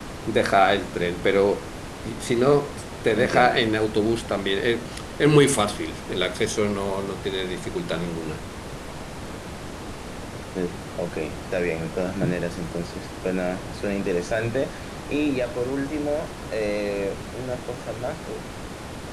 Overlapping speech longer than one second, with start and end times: none

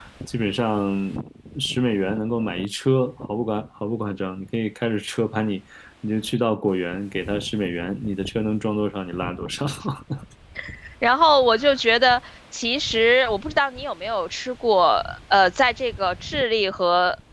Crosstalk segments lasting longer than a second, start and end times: none

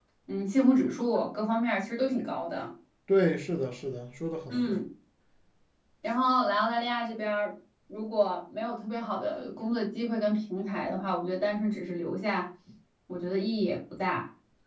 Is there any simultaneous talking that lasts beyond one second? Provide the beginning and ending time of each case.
none

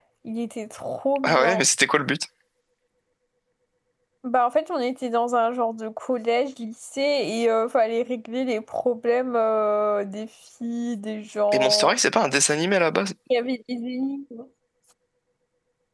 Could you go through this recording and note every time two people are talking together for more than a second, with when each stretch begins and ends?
none

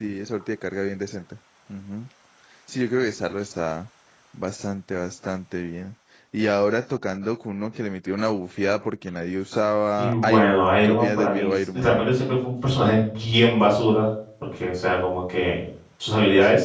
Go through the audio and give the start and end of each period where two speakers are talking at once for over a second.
10.0-11.9

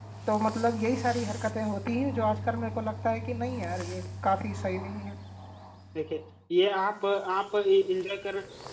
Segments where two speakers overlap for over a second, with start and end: none

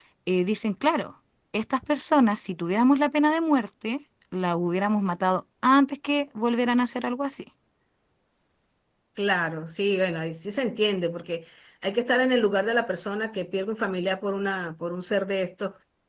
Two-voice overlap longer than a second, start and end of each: none

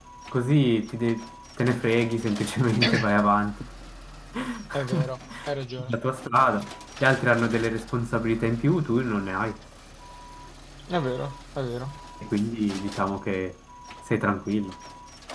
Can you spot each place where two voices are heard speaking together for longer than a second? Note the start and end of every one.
none

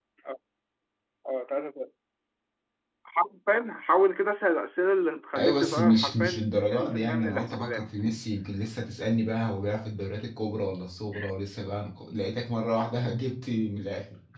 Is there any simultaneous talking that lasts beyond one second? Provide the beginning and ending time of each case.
5.3-7.8

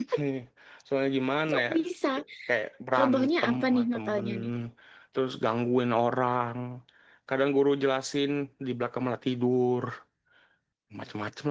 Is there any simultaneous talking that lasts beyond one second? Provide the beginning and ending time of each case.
3.0-4.3

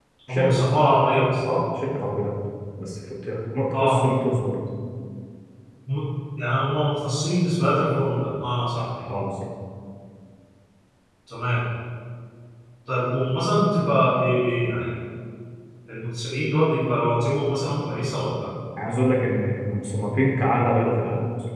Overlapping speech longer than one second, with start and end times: none

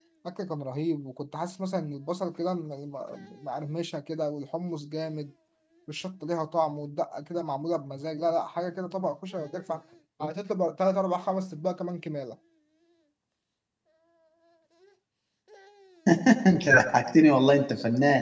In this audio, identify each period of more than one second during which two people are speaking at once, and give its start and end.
none

